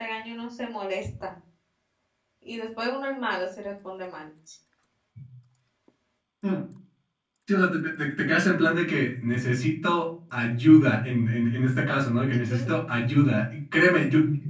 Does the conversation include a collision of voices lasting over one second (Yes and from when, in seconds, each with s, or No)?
No